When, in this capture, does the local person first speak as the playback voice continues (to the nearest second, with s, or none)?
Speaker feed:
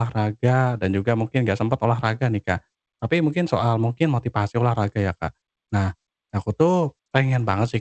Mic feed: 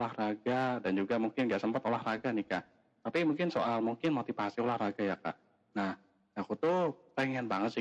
none